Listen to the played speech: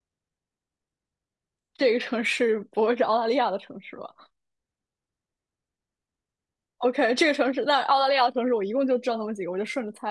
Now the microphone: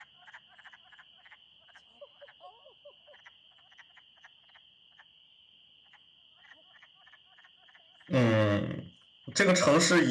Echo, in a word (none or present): none